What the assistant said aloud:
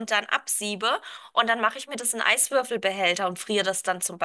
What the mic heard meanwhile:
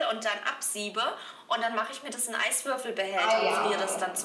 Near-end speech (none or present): present